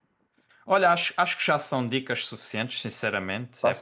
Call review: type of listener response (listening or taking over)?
listening